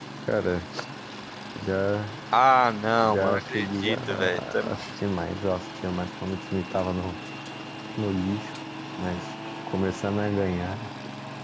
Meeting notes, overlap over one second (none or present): present